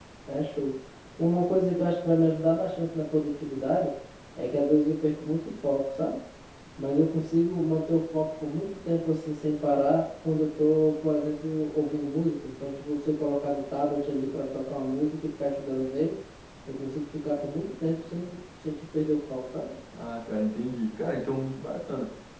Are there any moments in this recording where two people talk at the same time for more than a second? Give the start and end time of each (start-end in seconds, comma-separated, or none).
none